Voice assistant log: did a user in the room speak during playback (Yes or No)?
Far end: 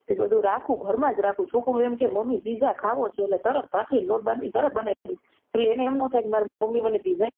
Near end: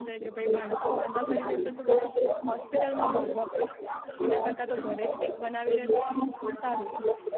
Yes